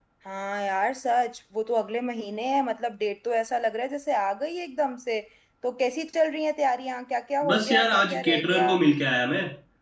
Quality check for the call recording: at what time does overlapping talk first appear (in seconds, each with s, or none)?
7.4 s